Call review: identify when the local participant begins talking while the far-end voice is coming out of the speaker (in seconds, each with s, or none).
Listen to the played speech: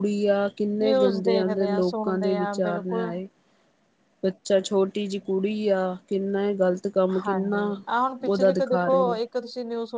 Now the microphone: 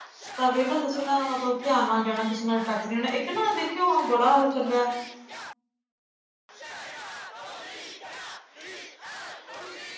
0.3 s